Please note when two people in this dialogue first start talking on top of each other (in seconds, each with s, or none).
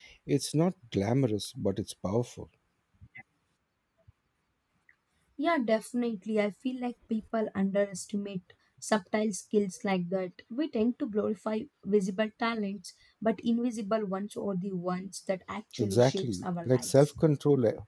15.8 s